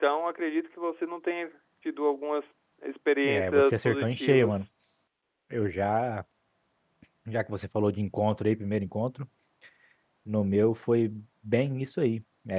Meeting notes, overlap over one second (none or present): present